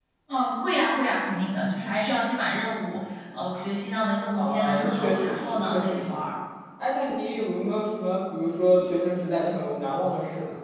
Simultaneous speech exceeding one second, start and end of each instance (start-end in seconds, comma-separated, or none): 4.3-6.2